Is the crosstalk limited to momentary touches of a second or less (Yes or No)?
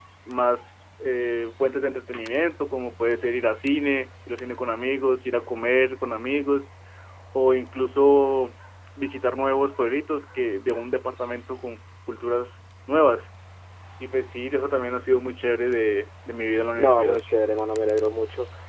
Yes